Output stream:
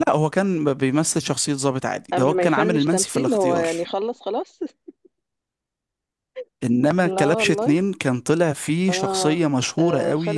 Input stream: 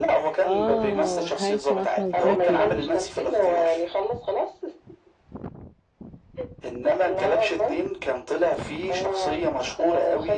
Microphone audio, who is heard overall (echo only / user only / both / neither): both